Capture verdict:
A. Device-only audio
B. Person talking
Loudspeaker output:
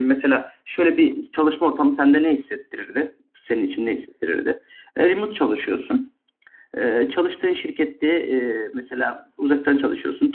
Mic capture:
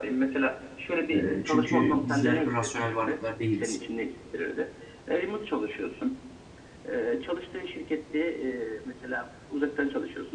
B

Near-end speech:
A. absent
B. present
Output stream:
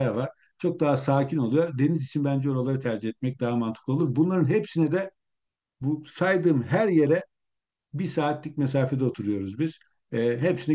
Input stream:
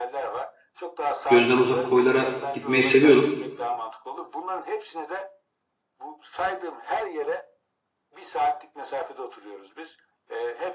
B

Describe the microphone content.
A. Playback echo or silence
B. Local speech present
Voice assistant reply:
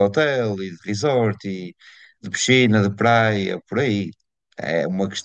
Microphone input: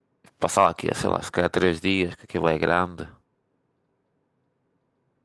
B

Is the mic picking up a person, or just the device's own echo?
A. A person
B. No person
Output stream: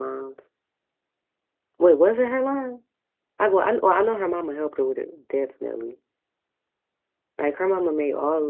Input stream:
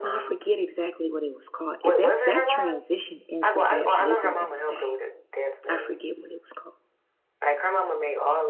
A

